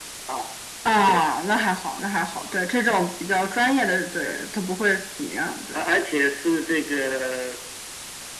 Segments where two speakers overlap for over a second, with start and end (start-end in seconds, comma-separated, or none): none